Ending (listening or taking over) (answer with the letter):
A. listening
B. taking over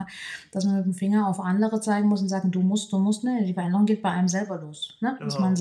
A